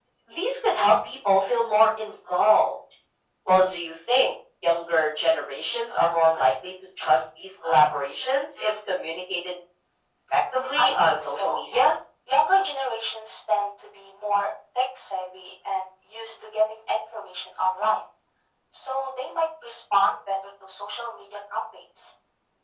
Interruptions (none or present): present